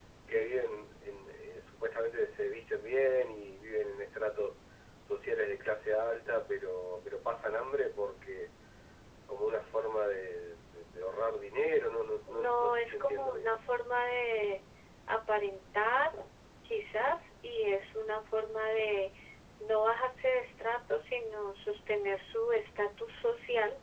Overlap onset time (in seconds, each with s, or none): 12.3 s